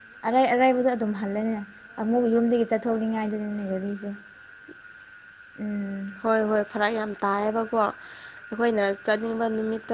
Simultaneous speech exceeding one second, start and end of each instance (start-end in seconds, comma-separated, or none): none